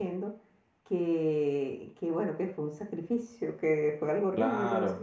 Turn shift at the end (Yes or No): No